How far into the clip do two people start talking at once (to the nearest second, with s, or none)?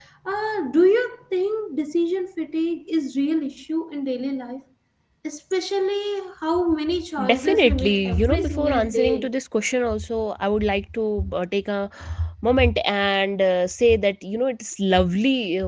7 s